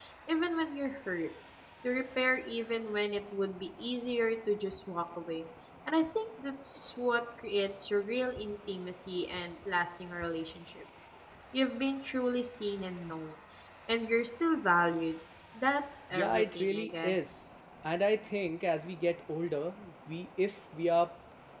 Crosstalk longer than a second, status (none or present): present